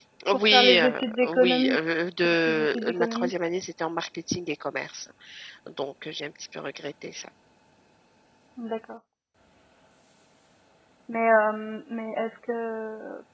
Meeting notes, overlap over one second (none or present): present